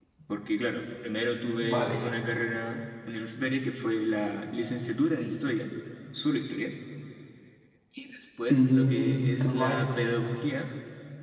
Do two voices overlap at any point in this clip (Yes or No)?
Yes